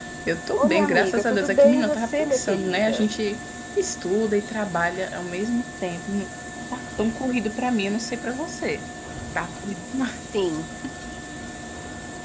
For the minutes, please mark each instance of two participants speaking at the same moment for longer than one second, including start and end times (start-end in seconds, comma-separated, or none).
0.6-3.1